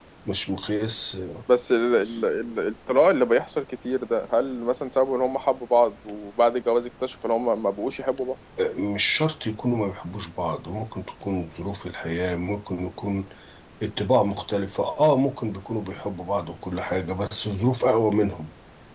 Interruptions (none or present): none